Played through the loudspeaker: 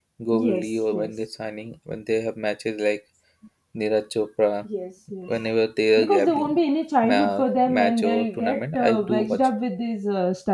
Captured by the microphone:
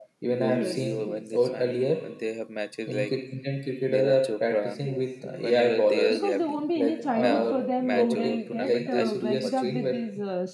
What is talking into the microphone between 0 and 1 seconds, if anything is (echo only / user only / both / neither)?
both